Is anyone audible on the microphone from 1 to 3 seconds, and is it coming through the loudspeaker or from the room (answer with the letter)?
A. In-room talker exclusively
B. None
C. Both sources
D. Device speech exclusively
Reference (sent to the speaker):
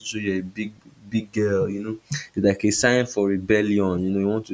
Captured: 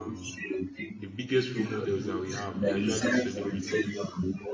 C